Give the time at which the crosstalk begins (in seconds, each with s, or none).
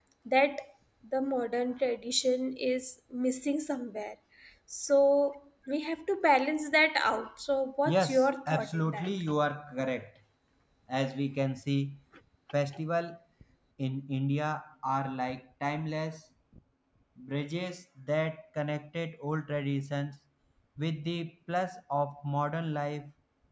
7.8 s